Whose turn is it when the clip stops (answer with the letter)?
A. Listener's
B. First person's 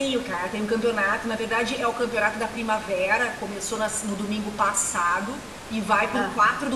B